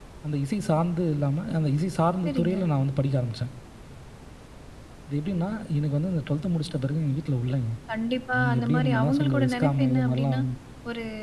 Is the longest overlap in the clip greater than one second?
Yes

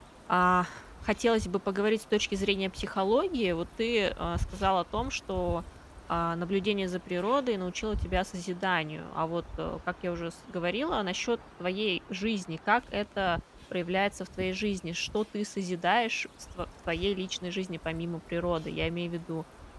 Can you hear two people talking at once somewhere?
No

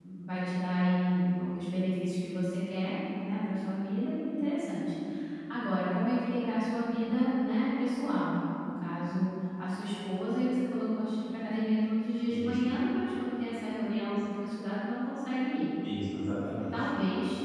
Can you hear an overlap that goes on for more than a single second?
No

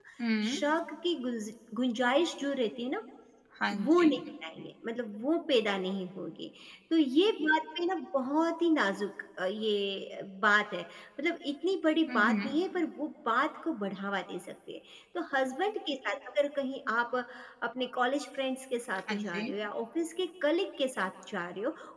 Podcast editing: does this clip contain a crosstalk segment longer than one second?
No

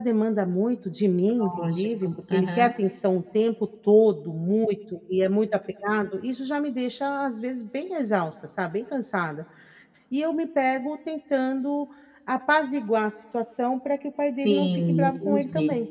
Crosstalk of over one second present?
Yes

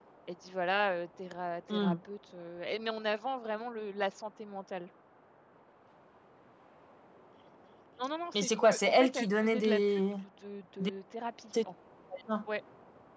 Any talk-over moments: Yes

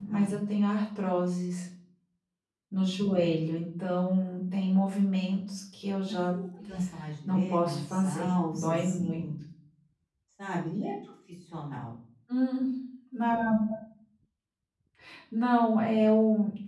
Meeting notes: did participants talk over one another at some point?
Yes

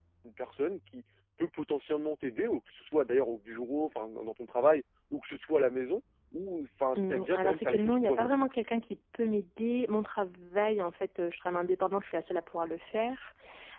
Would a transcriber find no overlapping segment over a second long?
No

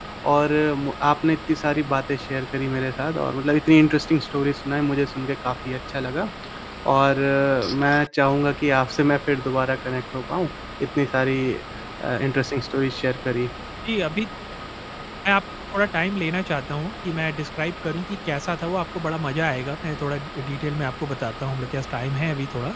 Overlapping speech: No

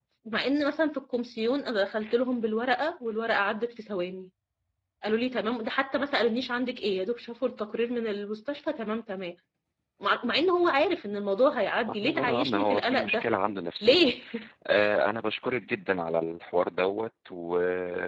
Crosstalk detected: Yes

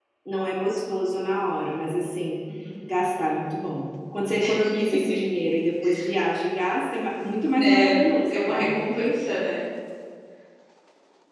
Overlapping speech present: Yes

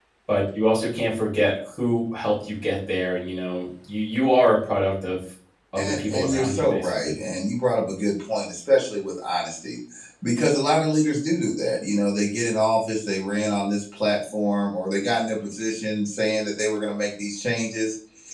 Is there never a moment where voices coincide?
No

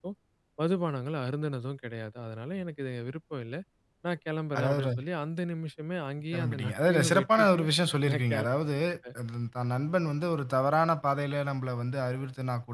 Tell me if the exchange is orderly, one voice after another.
No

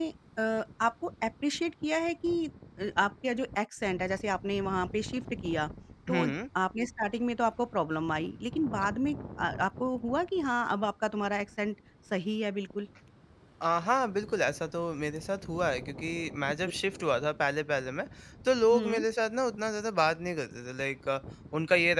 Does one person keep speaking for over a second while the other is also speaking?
No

